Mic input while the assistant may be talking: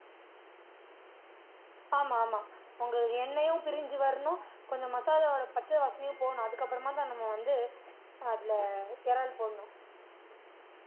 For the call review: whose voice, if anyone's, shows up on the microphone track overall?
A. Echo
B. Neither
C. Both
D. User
D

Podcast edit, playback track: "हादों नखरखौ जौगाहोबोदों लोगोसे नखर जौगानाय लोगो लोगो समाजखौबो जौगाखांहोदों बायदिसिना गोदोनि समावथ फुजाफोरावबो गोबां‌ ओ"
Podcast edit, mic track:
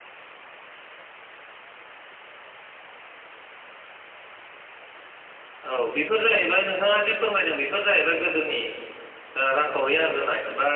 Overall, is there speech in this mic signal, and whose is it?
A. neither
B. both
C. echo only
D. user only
D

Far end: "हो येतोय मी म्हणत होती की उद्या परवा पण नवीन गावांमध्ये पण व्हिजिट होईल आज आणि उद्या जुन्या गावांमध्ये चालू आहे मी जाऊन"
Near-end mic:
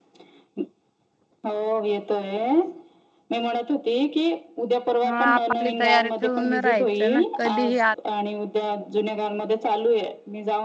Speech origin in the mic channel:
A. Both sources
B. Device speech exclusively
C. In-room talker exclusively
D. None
A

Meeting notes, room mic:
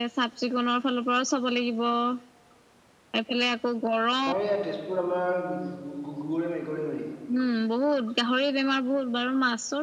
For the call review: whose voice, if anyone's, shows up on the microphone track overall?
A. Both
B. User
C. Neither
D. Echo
A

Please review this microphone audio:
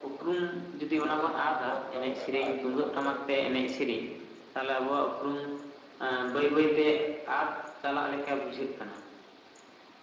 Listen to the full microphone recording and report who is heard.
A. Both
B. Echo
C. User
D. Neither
A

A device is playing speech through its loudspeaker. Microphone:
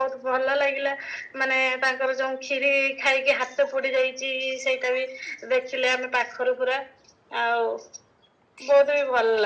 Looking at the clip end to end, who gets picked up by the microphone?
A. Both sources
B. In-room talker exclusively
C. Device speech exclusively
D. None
C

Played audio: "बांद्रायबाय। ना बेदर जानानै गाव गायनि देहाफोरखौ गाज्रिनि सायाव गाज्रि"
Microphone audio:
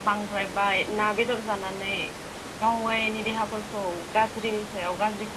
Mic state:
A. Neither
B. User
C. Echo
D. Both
C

